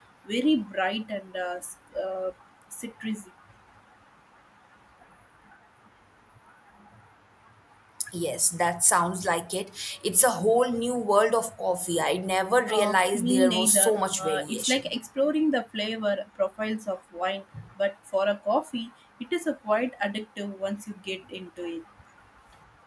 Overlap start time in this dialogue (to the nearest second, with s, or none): 13 s